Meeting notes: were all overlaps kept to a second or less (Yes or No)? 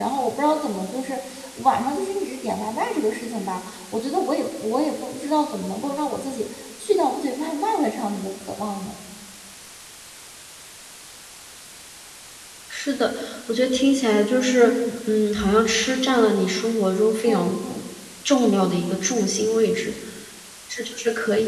Yes